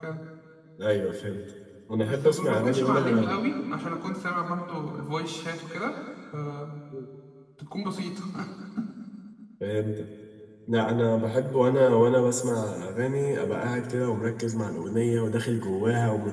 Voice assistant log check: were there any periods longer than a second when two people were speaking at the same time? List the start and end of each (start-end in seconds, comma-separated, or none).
2.0-3.4